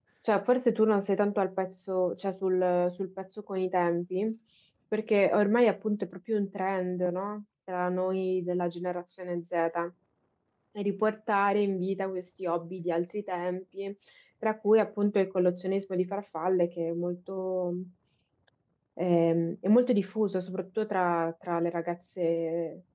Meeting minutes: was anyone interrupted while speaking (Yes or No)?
No